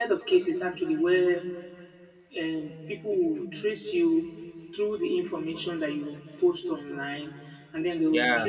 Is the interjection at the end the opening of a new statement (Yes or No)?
No